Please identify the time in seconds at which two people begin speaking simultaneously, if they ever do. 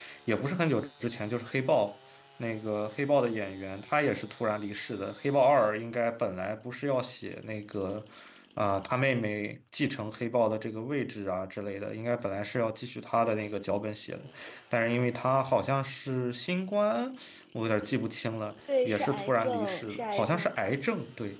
18.7 s

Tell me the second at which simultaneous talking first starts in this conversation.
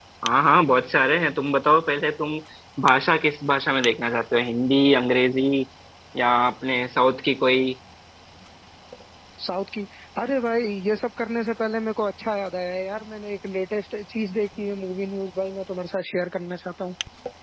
none

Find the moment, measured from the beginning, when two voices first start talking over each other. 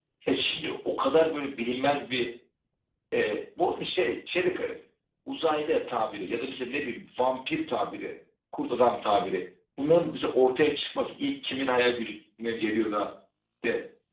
none

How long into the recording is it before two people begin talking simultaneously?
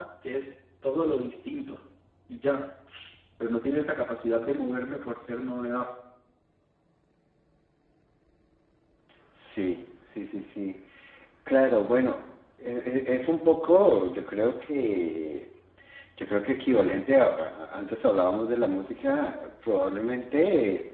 none

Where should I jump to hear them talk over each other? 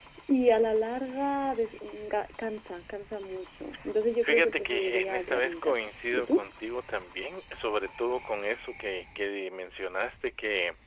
4.2 s

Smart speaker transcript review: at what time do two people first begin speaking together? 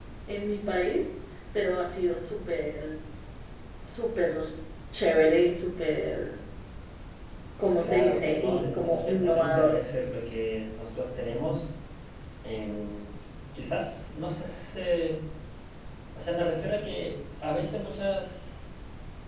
7.8 s

